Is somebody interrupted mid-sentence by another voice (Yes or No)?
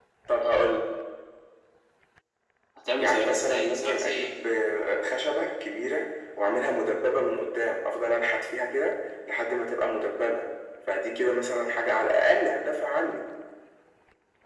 Yes